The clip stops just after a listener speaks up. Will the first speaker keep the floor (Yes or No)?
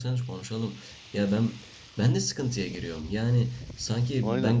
Yes